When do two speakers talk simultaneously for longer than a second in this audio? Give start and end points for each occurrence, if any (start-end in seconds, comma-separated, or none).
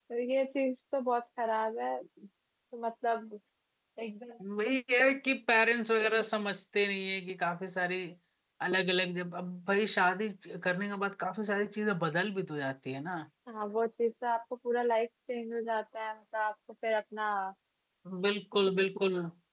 none